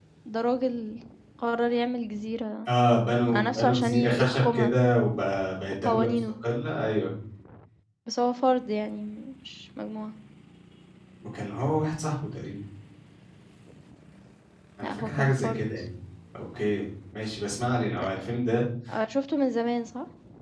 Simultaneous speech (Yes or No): Yes